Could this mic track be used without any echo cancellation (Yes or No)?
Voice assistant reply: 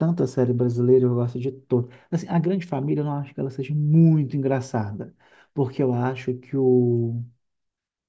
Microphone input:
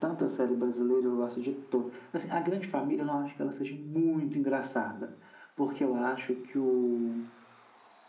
No